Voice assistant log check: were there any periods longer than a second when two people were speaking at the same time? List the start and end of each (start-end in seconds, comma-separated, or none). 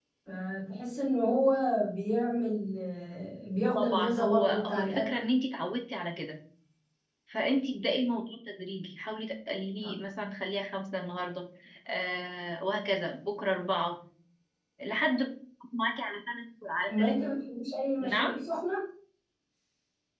3.7-5.2